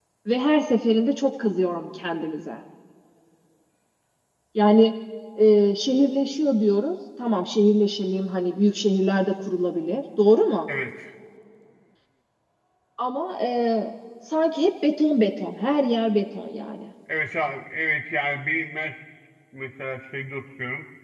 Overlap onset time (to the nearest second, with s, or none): none